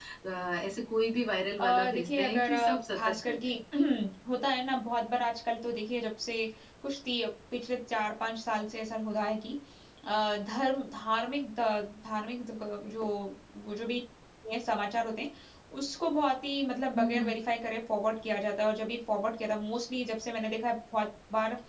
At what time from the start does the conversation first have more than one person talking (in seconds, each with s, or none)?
1.6 s